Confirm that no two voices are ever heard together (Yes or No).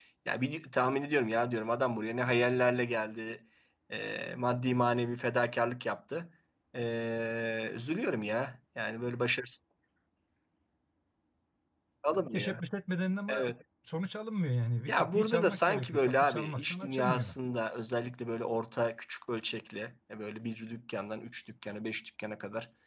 No